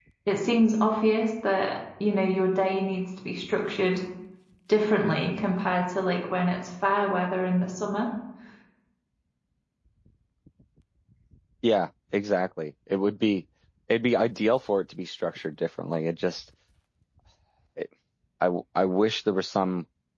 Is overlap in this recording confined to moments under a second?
Yes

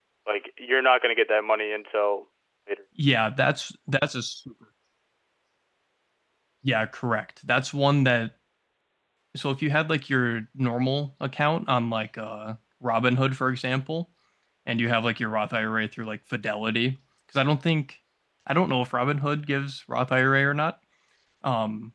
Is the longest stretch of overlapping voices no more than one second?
Yes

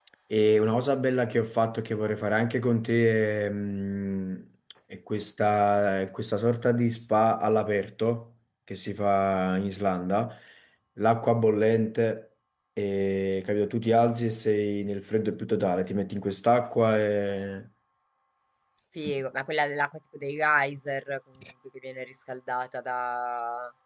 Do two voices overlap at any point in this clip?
No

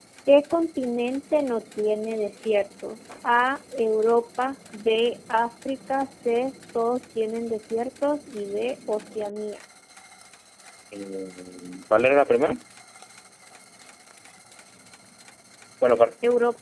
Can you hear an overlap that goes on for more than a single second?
No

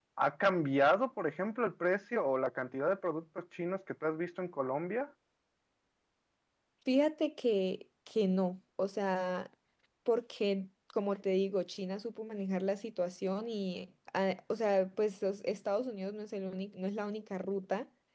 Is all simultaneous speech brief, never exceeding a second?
Yes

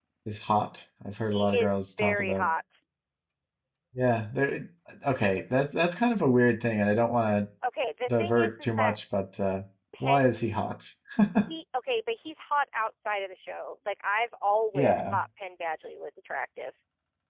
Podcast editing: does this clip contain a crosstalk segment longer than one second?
Yes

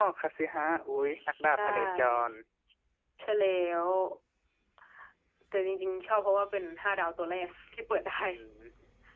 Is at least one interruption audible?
Yes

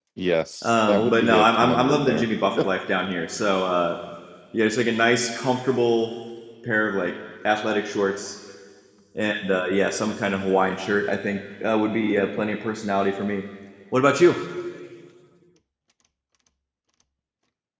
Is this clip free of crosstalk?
No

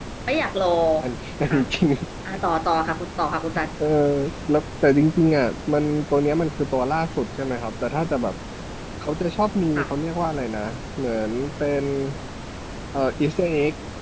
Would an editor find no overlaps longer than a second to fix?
Yes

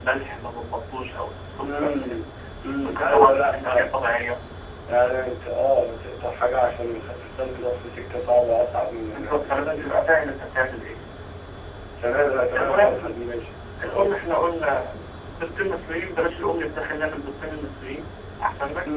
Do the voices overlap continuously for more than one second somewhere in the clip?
Yes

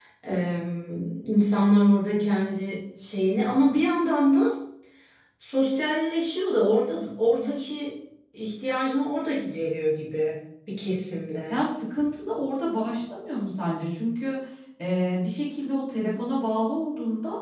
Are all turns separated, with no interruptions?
Yes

